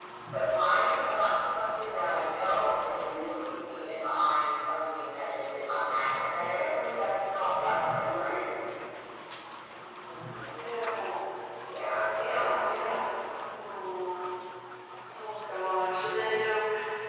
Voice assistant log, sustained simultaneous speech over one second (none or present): none